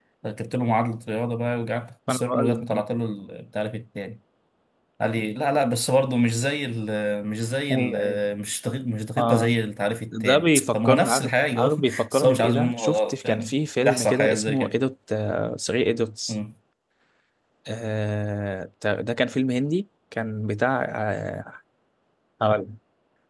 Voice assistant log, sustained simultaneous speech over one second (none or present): present